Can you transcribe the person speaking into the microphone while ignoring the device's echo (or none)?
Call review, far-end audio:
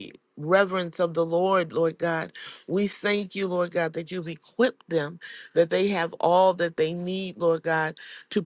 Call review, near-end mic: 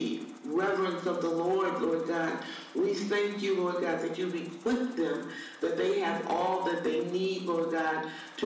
none